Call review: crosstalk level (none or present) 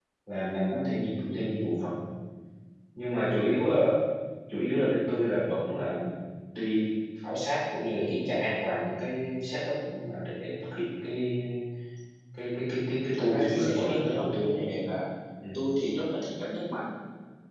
present